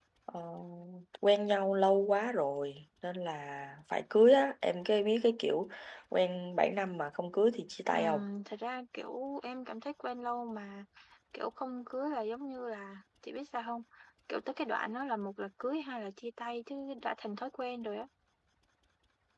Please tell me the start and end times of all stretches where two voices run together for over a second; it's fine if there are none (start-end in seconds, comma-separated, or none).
none